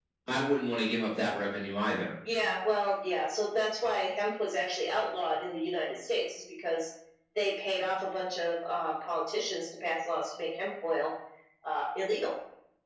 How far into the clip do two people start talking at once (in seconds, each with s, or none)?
none